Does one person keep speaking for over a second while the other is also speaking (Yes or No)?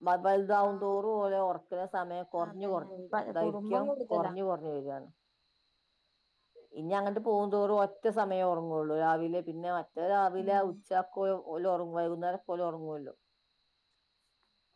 Yes